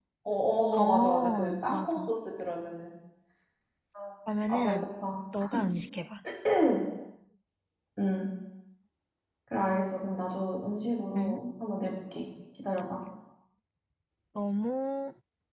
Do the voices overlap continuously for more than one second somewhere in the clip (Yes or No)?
Yes